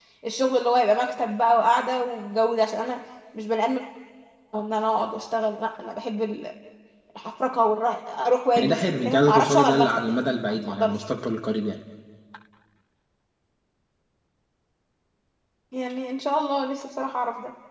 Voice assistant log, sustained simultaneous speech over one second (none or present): present